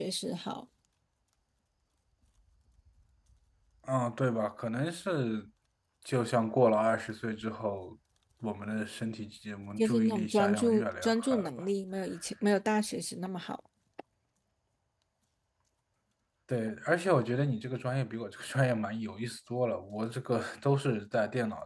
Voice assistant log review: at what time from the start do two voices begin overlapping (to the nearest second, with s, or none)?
10 s